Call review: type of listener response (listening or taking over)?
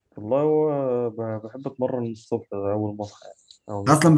taking over